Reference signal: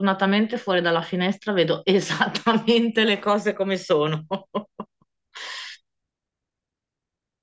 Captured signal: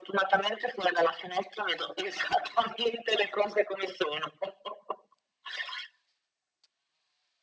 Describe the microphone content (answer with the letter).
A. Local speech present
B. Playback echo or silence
B